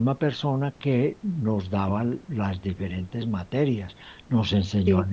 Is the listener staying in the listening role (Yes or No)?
Yes